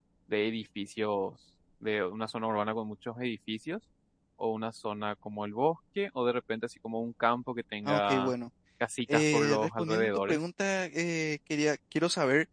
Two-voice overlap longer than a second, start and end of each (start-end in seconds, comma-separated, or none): 9.1-10.4